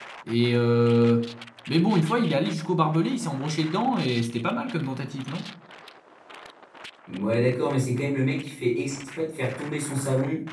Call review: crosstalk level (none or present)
none